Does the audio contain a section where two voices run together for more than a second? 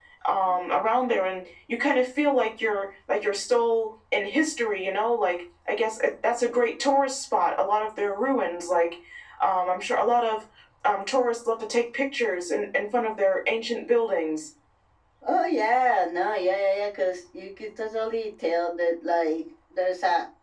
No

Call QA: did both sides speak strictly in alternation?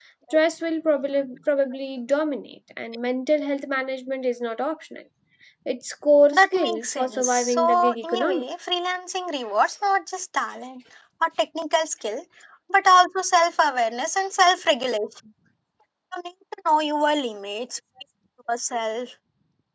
No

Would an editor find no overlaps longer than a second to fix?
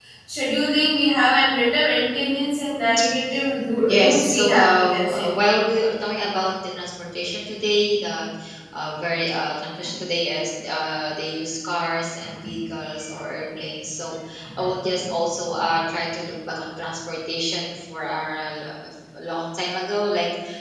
No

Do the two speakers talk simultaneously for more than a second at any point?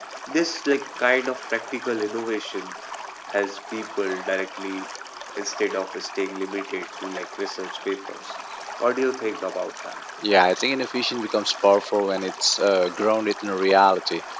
No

